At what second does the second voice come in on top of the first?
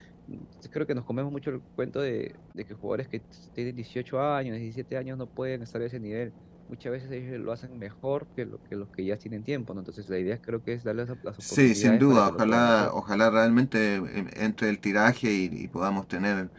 11.4 s

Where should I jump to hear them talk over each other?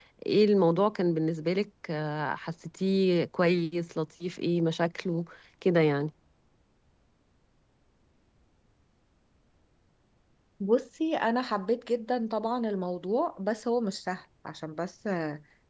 none

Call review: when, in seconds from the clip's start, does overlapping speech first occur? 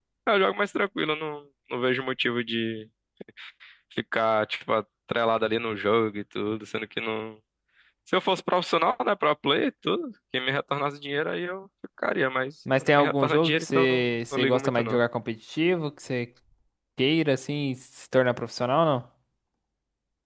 12.7 s

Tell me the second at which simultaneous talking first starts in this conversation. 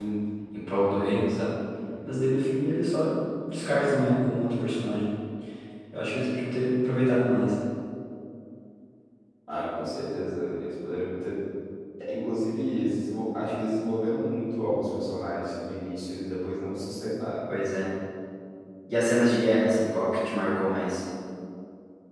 none

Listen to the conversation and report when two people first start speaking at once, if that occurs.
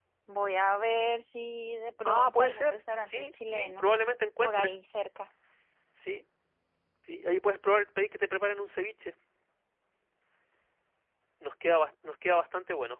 2.0 s

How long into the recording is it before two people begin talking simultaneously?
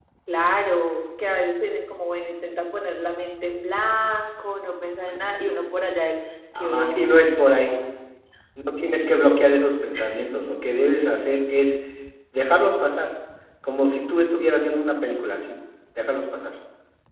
6.5 s

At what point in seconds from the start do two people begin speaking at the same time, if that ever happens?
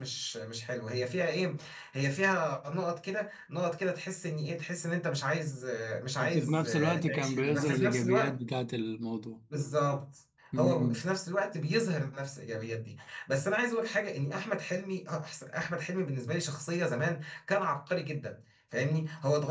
6.2 s

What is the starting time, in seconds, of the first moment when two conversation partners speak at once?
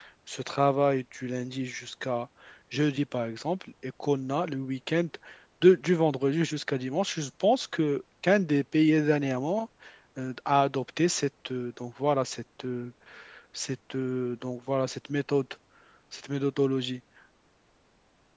none

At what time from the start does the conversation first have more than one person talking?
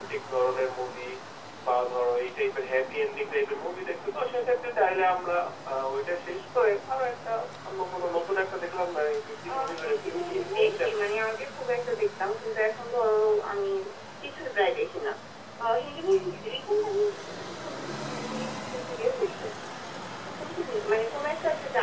9.5 s

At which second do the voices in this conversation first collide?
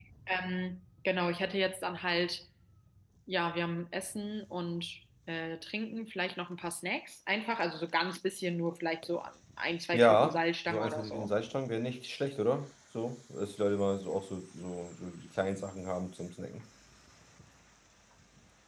9.9 s

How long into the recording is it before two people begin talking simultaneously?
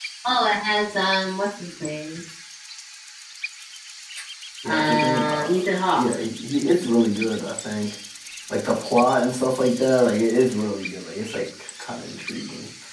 4.7 s

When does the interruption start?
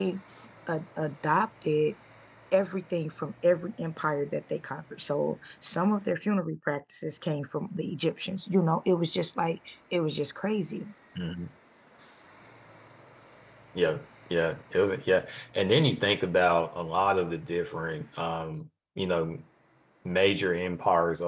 none

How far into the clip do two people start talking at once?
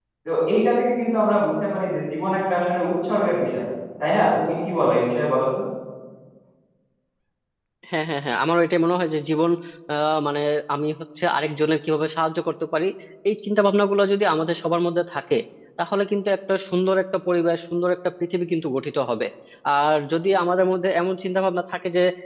none

